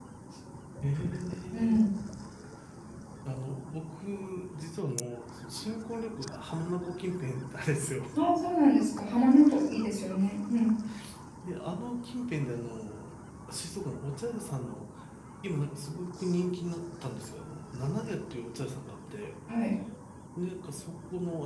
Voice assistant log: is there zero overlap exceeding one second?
Yes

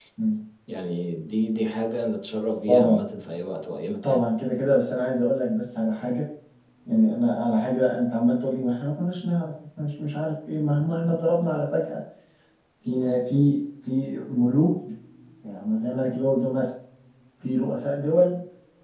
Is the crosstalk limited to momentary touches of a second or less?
Yes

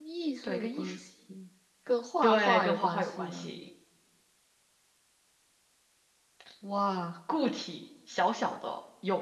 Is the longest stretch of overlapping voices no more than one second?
No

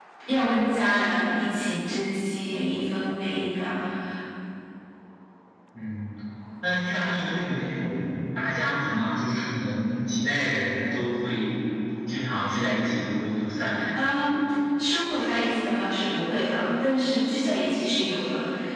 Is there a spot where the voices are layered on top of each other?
No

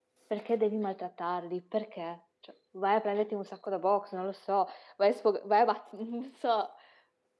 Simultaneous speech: No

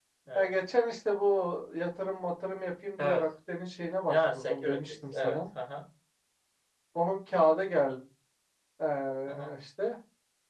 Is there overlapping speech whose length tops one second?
Yes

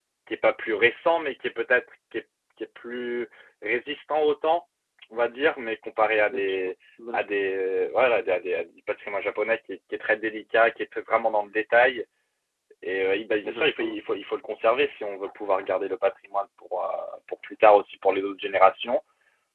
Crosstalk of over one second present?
No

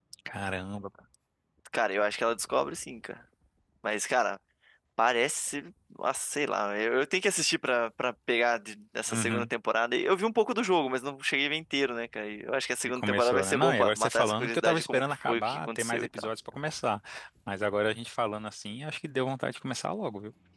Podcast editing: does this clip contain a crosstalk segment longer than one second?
Yes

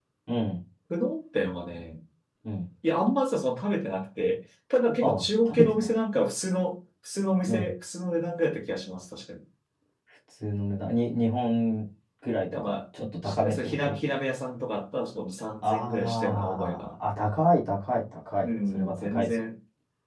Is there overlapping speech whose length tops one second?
Yes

